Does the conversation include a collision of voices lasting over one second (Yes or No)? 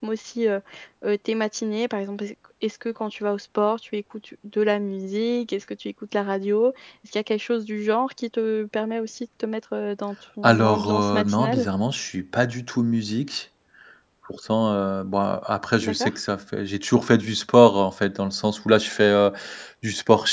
Yes